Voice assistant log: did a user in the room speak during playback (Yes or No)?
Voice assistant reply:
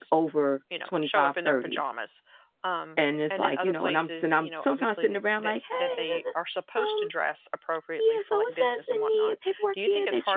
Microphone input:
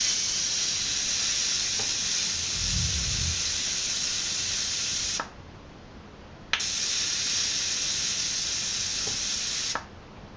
No